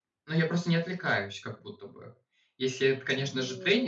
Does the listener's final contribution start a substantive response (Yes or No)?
No